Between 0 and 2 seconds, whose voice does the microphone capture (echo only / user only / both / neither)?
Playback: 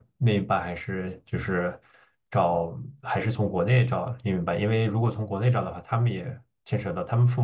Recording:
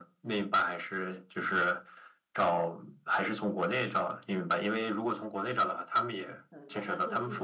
echo only